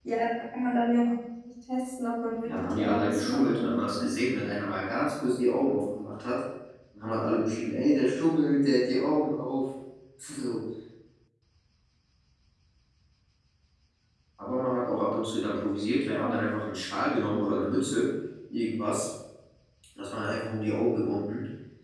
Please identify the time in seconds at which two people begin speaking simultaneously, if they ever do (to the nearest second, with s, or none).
2 s